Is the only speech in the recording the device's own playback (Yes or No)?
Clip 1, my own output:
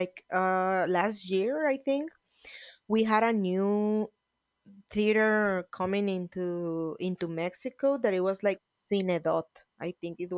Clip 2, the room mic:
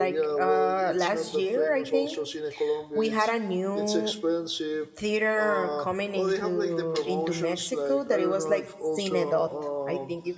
No